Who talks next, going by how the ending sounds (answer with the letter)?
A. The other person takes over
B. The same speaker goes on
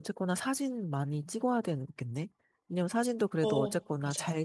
B